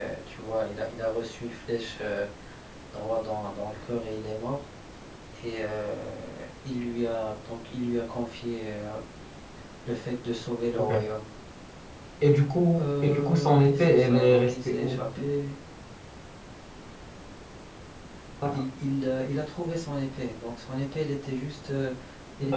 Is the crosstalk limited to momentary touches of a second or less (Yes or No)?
No